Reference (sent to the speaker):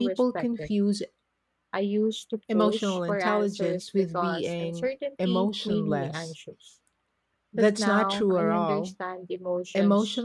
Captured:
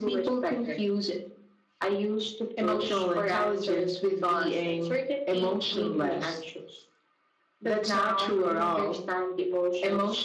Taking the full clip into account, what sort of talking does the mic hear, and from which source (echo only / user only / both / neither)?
echo only